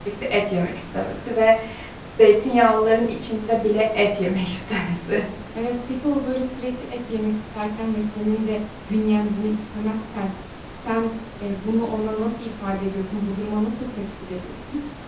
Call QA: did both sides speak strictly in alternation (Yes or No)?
Yes